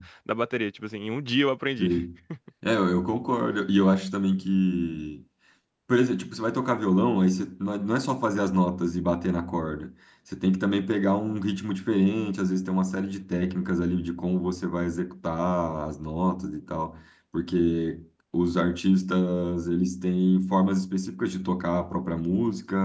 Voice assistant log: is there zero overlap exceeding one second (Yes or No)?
Yes